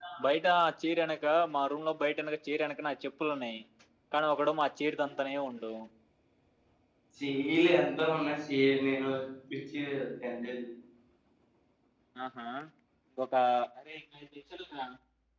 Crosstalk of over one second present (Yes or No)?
No